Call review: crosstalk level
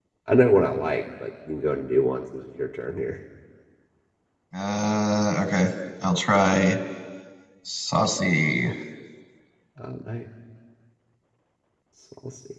none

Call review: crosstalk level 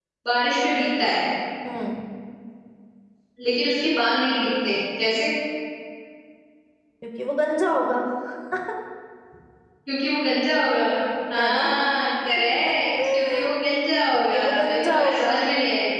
present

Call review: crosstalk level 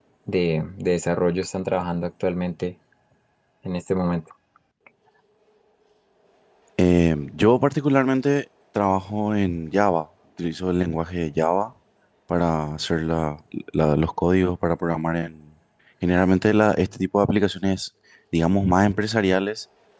none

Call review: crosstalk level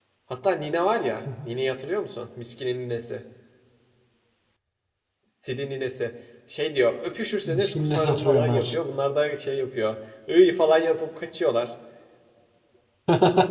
present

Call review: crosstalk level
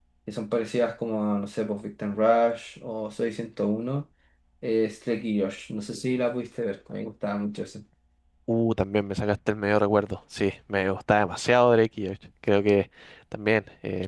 none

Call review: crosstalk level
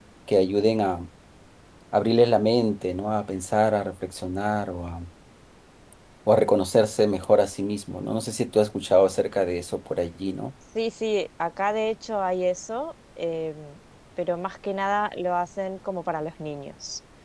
none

